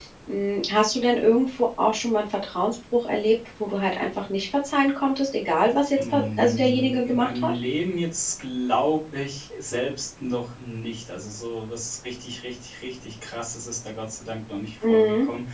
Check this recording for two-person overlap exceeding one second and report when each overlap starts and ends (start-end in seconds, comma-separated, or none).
6.0-7.6